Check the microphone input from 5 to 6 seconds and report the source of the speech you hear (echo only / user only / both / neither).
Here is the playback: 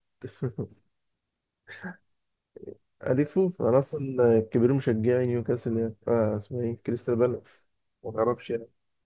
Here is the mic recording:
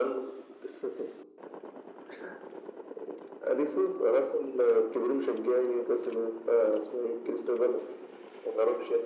echo only